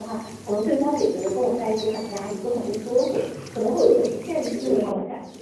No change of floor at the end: No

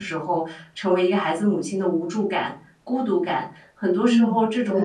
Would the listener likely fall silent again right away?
Yes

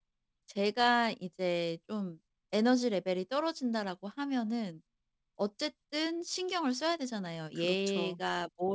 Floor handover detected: No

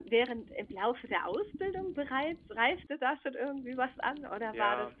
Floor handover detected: No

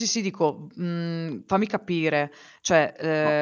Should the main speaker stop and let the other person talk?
Yes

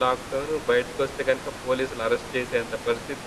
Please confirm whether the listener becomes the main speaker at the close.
No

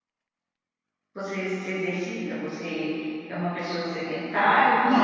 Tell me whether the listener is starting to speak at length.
Yes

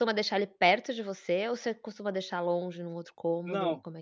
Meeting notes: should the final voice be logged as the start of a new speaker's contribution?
Yes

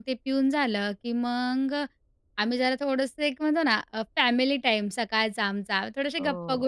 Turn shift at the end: No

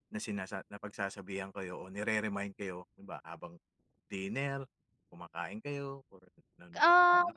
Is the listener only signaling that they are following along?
No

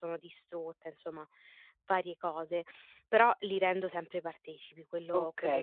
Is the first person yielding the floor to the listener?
Yes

